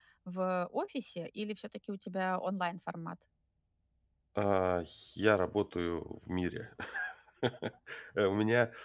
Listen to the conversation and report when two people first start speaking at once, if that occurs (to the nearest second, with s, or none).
none